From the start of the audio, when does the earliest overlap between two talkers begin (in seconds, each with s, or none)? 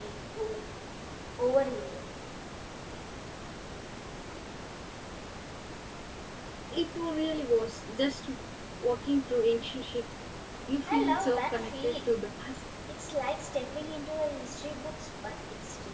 10.9 s